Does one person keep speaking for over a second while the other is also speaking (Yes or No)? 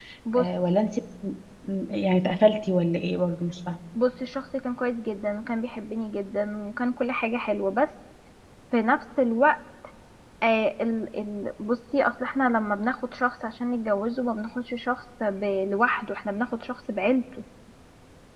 No